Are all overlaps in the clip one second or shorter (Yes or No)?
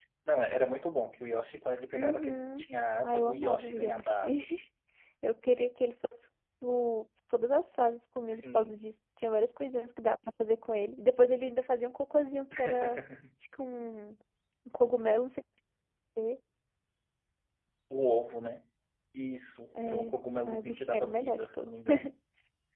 No